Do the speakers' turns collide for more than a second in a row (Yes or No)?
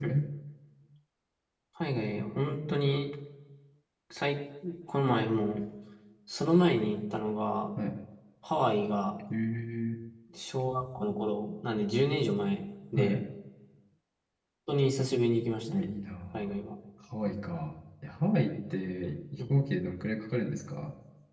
No